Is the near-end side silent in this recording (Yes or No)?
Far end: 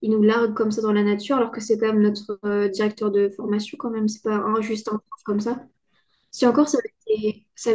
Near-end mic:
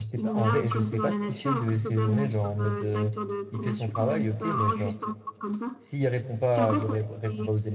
No